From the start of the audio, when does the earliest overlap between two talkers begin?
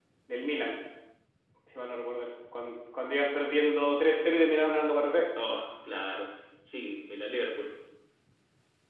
none

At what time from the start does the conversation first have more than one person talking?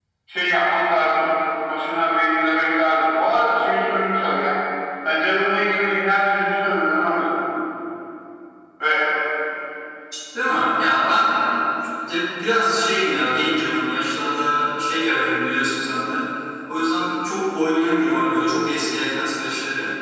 none

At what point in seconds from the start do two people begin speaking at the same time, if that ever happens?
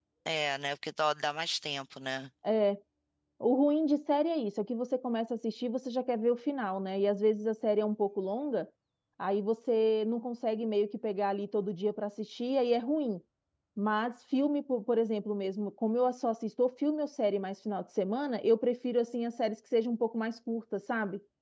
none

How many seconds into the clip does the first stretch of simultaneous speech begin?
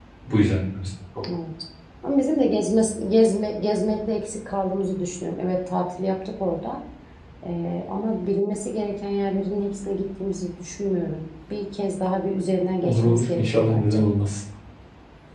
12.8 s

